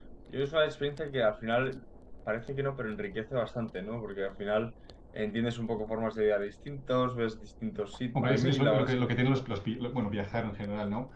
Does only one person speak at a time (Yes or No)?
No